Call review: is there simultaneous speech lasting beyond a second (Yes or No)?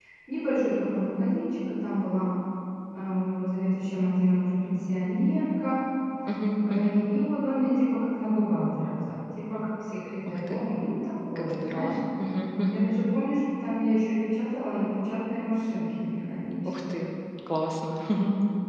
No